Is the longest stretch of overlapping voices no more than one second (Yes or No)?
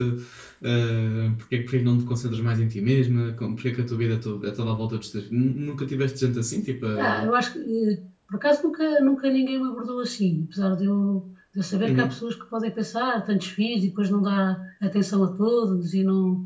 Yes